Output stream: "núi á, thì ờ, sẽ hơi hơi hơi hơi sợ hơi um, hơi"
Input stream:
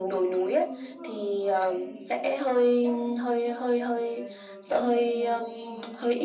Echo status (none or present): present